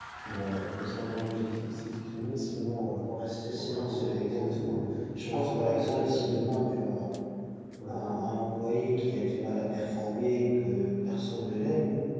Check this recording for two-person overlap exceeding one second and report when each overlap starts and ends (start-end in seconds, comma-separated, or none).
3.5-4.8, 5.2-6.6